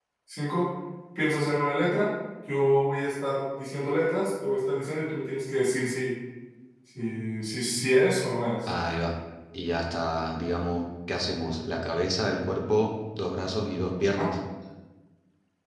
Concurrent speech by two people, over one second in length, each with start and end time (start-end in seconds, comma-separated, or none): none